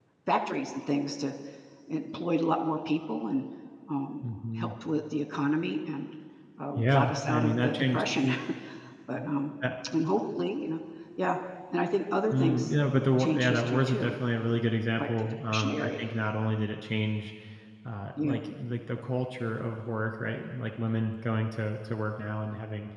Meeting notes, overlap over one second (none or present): present